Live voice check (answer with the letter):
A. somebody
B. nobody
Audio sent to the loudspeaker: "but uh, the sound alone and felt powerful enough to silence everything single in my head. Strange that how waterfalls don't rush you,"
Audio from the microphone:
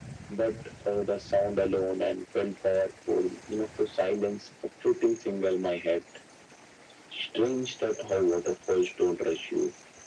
B